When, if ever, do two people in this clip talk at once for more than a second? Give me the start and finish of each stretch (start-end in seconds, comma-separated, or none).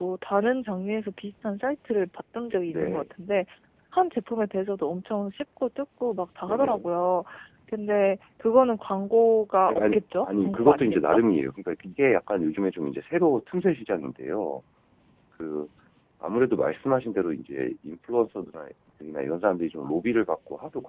9.6-11.2